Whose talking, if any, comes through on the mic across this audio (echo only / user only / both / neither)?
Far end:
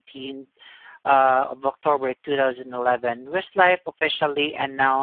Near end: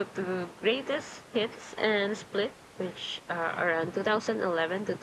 user only